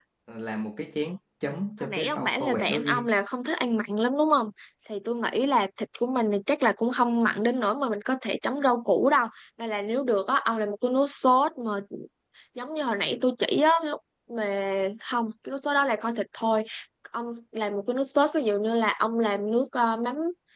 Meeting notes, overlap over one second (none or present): present